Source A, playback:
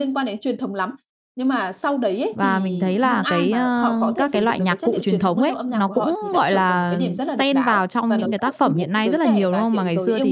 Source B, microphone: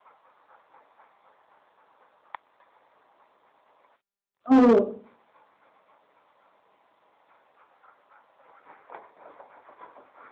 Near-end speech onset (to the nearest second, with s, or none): 4 s